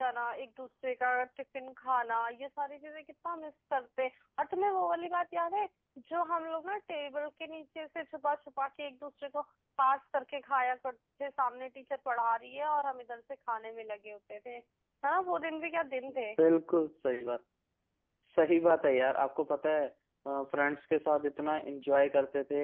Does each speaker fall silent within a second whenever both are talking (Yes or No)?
Yes